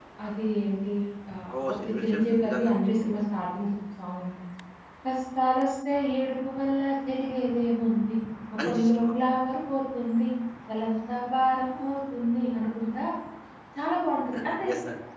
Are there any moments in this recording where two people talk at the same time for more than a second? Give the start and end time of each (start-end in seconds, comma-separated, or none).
1.7-3.1